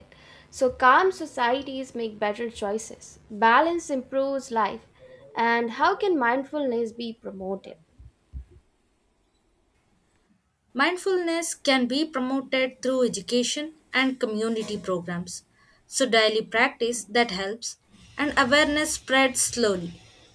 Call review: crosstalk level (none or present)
none